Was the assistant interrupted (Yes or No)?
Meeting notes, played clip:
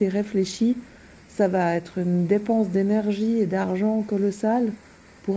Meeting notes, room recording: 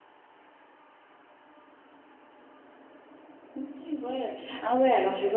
Yes